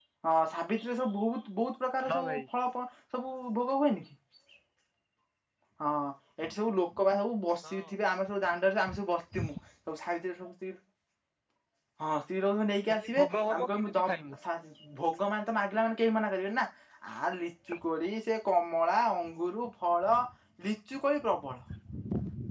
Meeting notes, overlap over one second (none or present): present